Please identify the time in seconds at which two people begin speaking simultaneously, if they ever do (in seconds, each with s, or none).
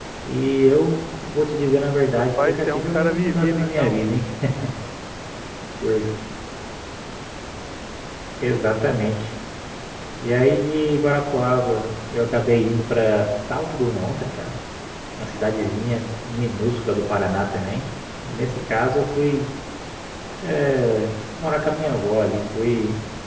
2.1 s